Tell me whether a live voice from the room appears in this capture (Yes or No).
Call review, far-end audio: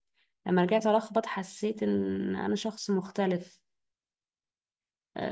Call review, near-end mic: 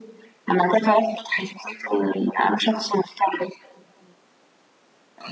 No